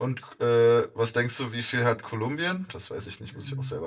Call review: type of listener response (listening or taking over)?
taking over